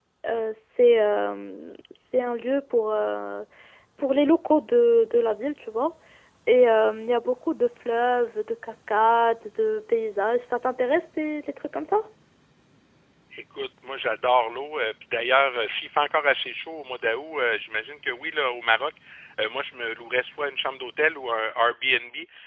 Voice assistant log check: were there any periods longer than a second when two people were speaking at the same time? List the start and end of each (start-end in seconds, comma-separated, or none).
none